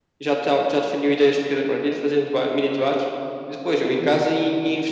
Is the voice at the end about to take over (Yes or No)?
No